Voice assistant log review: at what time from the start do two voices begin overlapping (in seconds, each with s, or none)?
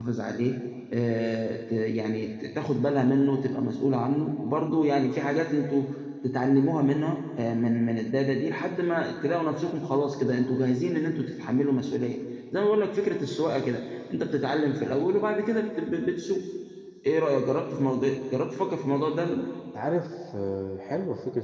none